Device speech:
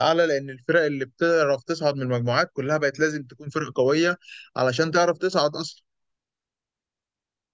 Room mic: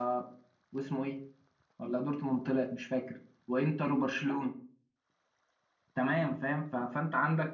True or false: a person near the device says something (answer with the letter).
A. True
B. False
A